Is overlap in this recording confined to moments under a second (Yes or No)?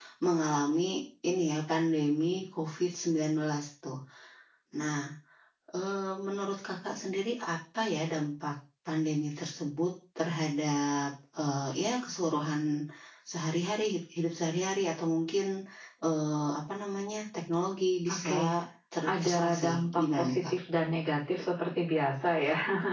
No